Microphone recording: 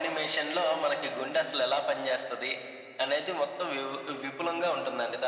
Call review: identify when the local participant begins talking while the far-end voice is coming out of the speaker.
none

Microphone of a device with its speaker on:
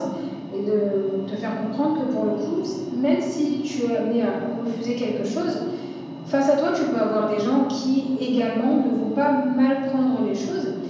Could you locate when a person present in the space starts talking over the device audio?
none

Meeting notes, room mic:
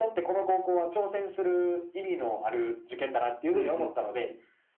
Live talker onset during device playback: 4 s

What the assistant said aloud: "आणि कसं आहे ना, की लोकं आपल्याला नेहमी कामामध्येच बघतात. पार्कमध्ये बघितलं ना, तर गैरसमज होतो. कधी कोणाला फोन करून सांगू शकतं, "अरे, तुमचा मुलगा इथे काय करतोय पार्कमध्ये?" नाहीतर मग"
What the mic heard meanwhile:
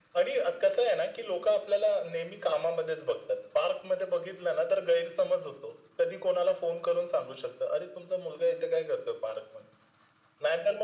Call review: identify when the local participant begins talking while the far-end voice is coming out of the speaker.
none

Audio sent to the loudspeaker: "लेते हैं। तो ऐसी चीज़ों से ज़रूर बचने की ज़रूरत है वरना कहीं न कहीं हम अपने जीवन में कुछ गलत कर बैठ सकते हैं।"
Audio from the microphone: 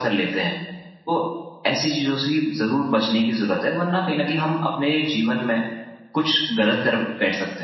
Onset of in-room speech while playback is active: none

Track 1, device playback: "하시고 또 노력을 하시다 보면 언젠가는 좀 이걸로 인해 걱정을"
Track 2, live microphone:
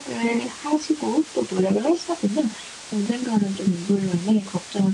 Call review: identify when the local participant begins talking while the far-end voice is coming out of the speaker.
none

